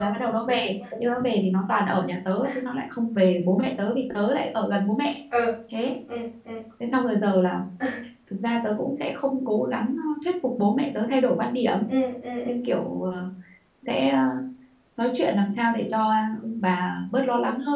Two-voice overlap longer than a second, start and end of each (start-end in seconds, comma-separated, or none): none